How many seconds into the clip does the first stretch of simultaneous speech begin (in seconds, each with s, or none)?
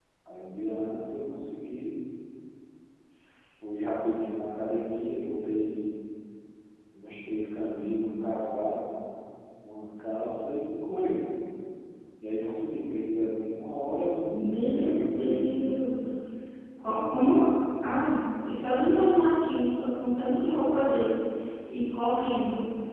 14.3 s